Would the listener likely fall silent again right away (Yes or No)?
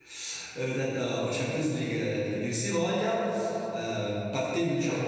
Yes